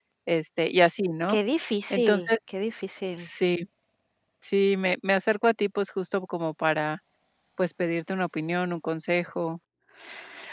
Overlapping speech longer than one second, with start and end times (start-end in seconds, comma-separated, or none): none